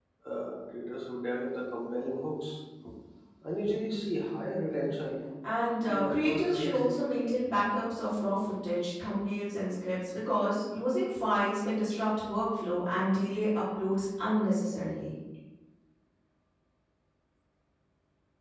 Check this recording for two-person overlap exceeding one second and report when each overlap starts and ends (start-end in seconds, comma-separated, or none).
5.8-7.2